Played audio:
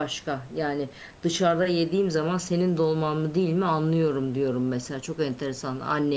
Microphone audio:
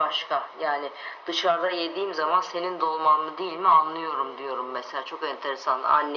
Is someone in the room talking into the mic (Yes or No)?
No